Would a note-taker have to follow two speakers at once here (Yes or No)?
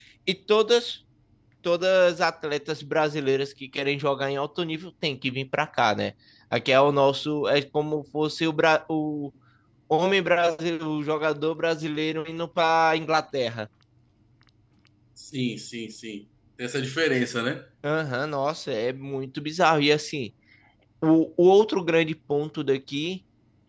No